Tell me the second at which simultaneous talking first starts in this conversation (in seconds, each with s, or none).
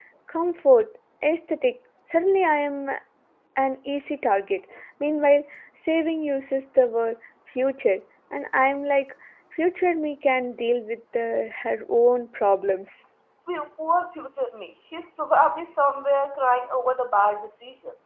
none